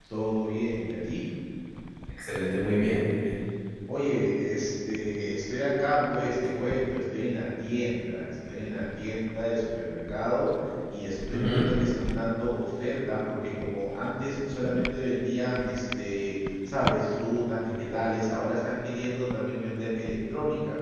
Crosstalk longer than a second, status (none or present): none